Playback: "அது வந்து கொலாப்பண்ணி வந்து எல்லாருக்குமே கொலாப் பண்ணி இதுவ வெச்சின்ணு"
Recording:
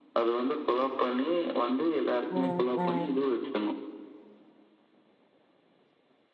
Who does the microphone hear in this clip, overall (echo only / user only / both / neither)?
both